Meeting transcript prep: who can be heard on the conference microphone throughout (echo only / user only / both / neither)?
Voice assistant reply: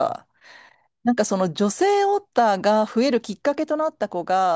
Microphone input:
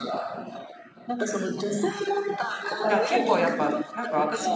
both